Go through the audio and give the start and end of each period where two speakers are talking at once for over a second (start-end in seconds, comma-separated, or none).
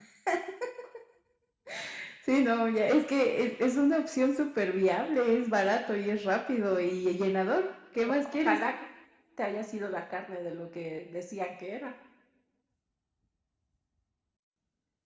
none